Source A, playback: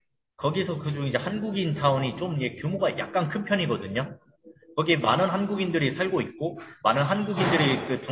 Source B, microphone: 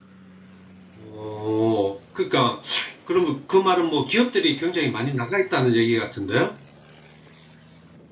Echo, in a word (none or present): none